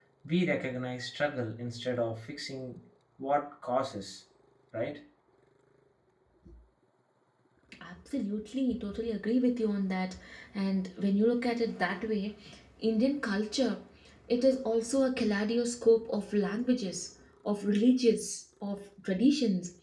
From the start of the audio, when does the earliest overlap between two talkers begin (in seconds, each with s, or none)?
none